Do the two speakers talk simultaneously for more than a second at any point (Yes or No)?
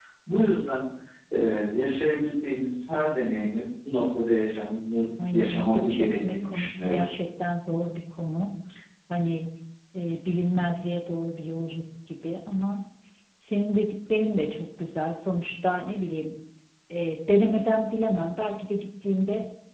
Yes